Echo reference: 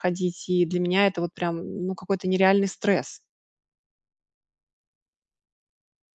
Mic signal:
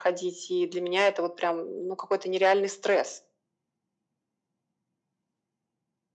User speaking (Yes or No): No